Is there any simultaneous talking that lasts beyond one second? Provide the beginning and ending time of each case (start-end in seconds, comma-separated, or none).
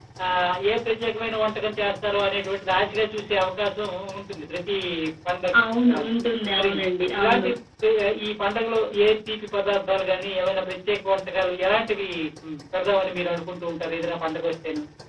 none